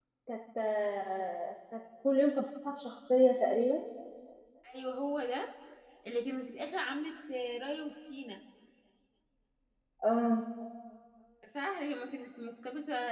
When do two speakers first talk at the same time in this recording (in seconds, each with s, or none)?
none